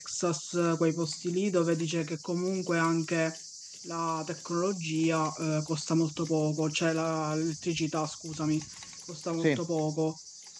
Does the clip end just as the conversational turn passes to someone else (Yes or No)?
No